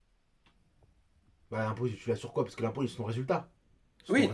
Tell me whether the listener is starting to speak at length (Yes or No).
Yes